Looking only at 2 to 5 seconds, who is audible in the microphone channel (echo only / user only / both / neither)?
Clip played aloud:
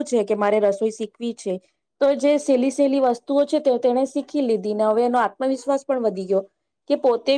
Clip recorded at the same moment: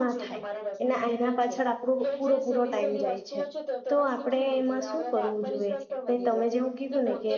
both